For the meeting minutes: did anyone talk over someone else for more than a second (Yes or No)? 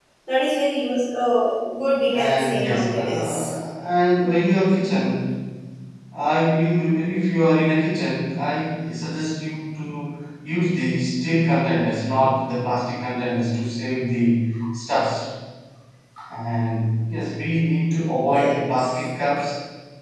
Yes